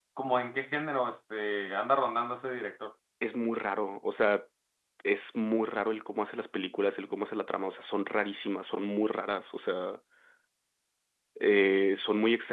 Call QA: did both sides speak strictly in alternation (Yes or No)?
Yes